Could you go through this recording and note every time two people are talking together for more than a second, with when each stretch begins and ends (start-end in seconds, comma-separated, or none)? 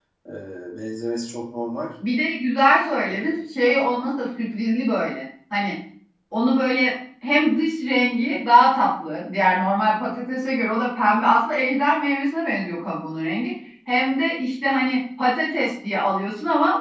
none